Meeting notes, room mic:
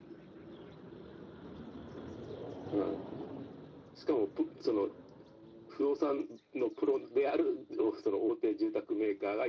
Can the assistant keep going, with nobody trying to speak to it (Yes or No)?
Yes